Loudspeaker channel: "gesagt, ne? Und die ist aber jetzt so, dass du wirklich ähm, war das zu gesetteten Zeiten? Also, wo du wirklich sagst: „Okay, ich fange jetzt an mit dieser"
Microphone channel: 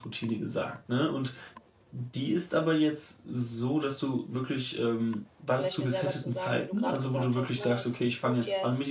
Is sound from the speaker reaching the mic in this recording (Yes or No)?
Yes